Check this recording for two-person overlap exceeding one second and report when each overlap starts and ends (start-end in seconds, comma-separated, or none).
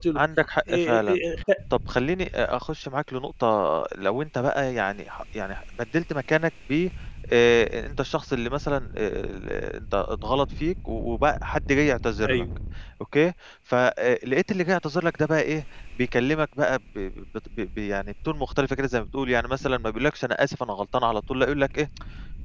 none